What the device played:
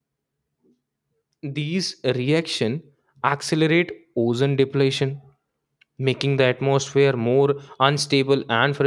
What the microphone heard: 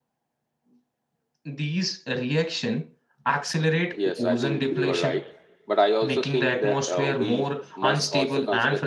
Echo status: present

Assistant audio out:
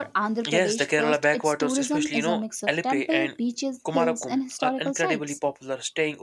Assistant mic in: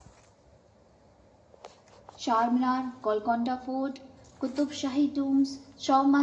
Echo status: none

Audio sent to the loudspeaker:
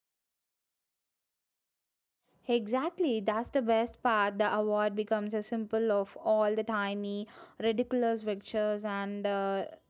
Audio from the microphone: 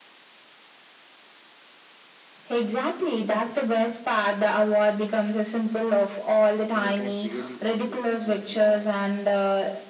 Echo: present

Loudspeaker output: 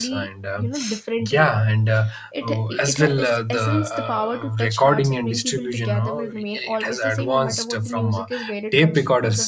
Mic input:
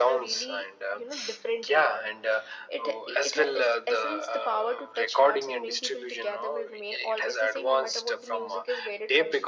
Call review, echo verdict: present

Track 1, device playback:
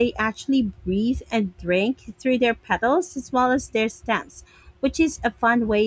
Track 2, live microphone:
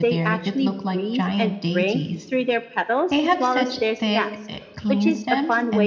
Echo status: present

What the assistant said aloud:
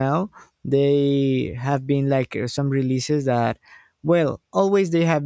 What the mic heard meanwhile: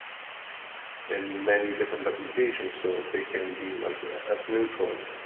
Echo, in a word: none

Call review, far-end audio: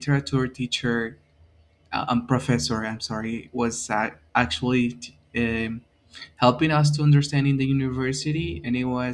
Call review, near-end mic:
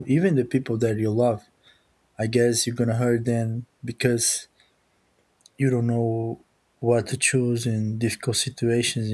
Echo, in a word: none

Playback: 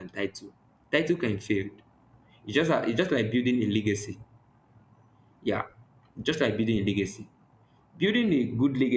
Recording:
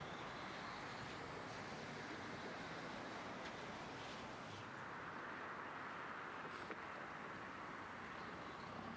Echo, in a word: none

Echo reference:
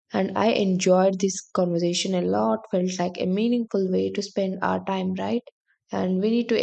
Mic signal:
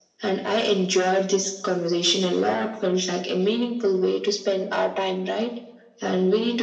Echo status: present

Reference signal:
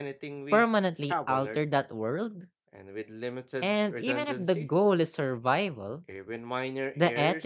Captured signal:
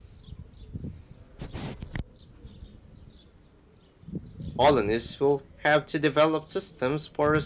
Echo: none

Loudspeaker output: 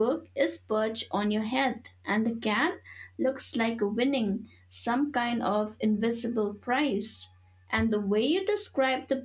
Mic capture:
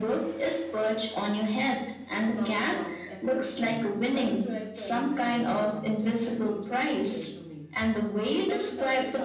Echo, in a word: present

